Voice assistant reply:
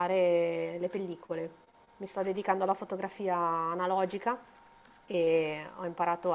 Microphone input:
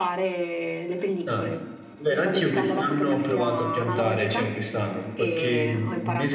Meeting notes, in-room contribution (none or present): present